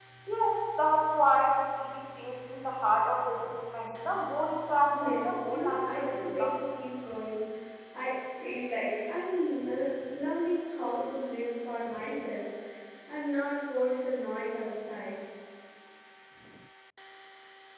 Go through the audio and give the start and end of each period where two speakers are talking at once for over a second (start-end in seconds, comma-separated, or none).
4.9-6.6